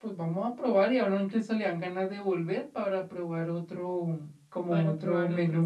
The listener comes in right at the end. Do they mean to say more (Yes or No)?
Yes